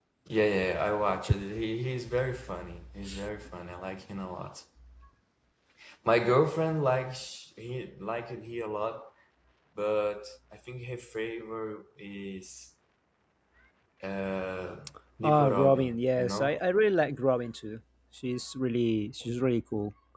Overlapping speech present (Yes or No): Yes